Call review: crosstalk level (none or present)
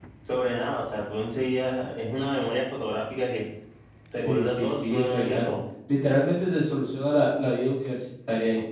present